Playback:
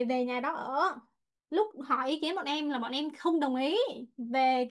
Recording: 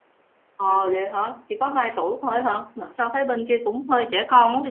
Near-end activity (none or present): present